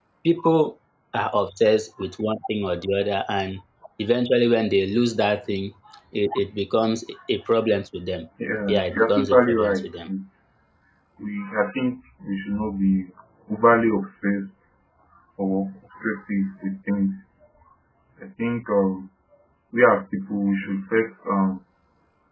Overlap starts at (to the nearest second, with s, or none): 9 s